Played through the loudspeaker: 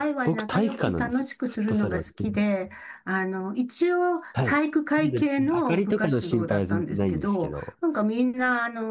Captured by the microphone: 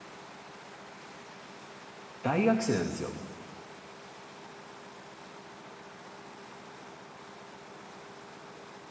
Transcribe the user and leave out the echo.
大学生なんですよ。

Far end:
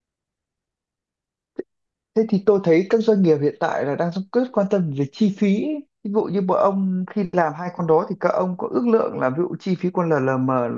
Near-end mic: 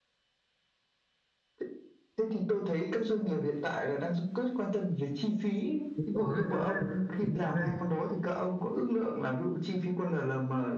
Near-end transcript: đúng rồi nói đấy. Đúng rồi.

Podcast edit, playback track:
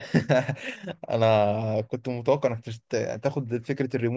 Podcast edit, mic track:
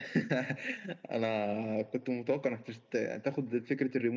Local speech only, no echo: none

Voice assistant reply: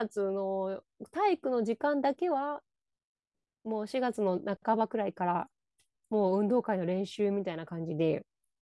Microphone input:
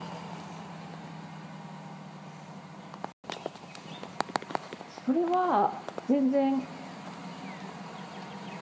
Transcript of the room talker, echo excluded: それは全然、

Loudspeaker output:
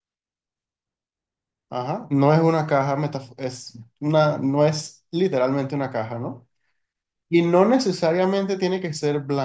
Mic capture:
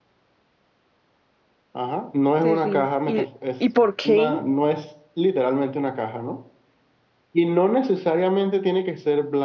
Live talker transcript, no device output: Terrible. ¿Y, y por qué?

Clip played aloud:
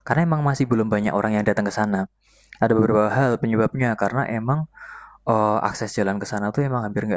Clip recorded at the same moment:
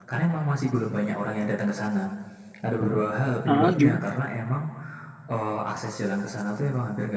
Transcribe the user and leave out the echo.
ah gimana?

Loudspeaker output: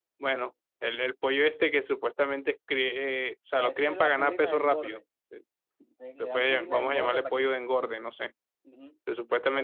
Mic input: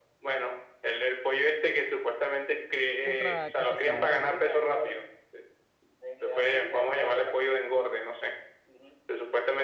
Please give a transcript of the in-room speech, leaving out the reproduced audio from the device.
otra cosa sabrosa.

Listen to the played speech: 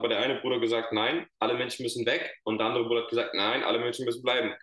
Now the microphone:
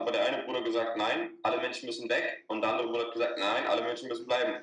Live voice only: none

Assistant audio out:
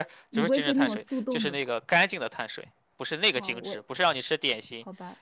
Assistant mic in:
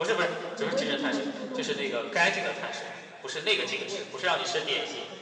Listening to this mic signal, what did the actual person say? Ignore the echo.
none

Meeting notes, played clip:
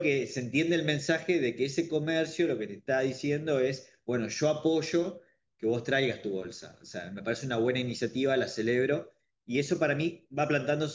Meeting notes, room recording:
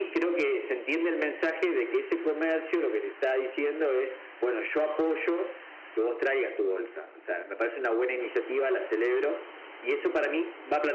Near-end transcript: none

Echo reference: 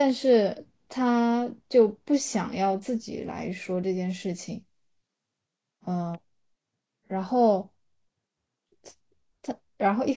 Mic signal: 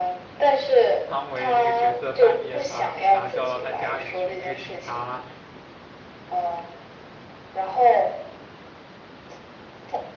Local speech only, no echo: 汤唯那个角色半夜把警察叫到他家里去，那个警察

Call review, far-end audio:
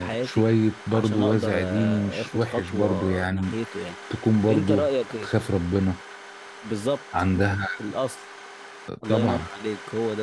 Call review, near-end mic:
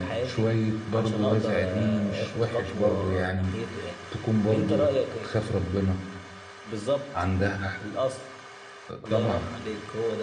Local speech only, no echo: none

